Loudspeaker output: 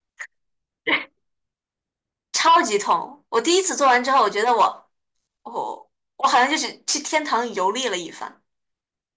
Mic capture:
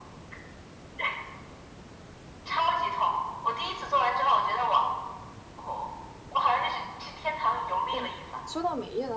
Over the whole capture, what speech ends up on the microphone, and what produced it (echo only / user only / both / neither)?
both